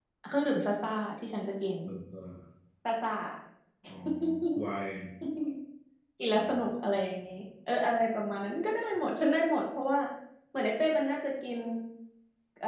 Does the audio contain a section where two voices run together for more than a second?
No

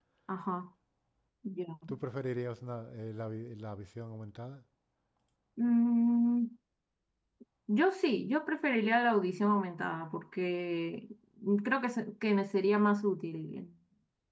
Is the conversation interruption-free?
Yes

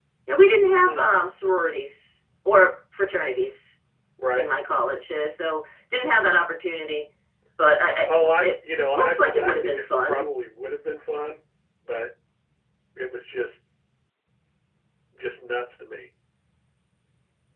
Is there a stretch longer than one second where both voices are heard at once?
Yes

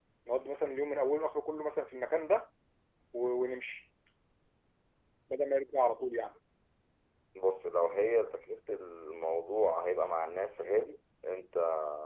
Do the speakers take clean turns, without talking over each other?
Yes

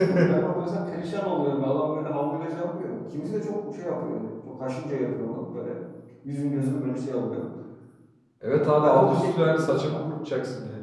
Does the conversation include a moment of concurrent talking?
Yes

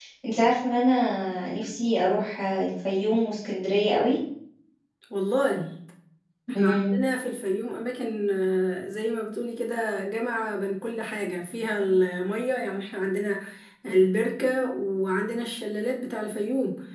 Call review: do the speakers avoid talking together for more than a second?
Yes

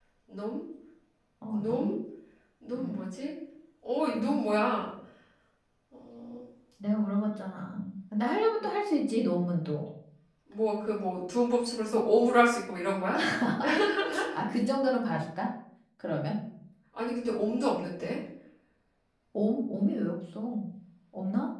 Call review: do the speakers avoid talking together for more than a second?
Yes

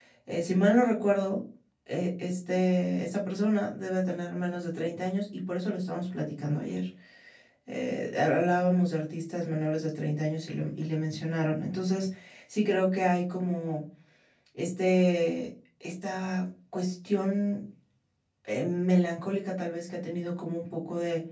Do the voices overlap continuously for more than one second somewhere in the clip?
No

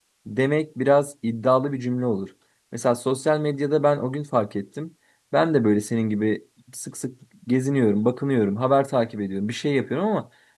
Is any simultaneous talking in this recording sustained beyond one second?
No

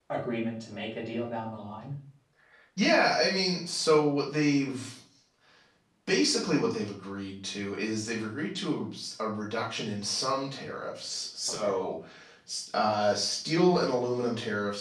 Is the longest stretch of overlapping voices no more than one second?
Yes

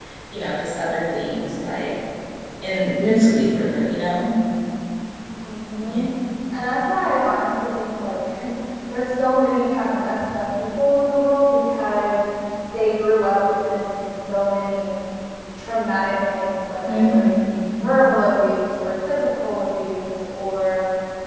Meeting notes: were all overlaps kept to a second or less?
Yes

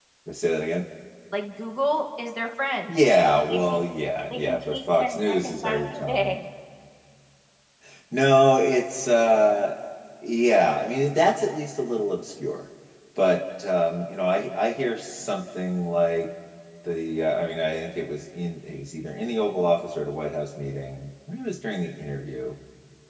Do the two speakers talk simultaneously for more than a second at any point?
Yes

